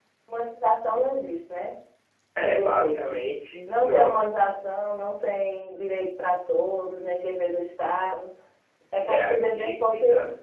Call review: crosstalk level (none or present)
present